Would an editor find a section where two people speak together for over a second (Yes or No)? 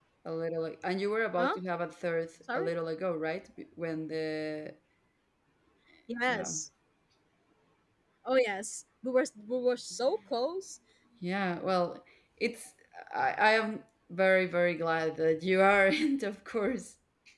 No